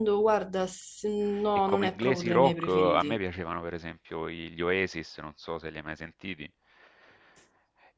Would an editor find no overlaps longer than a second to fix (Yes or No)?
No